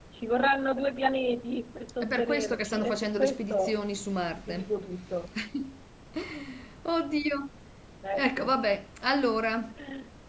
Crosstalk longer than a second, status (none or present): present